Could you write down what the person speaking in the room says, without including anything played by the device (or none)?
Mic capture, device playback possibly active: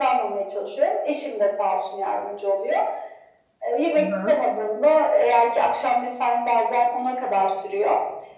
I hı.